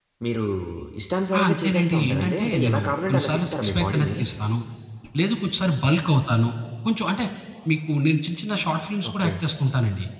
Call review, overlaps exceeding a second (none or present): present